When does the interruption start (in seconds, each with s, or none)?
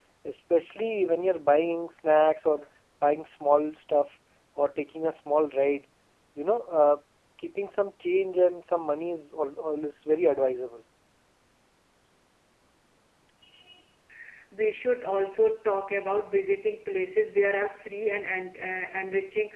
none